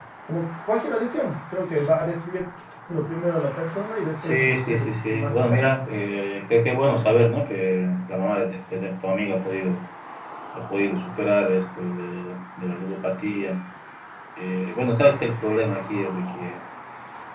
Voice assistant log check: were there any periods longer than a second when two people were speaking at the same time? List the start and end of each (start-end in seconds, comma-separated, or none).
4.2-5.7